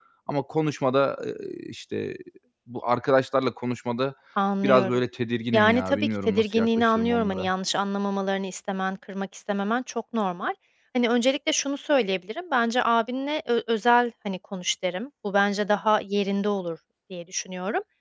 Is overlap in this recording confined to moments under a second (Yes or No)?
No